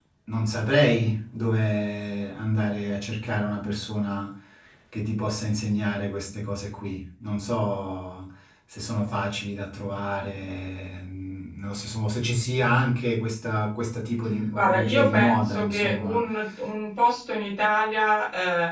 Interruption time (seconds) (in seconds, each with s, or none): 14.5 s